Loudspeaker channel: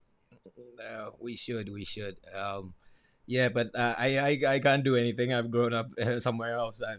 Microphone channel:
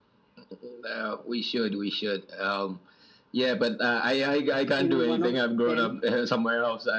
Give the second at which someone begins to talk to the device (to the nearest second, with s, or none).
5 s